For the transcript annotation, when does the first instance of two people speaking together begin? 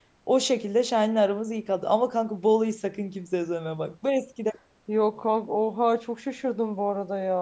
none

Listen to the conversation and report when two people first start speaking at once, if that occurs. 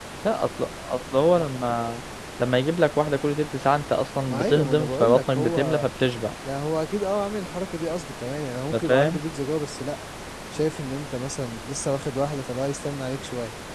4.3 s

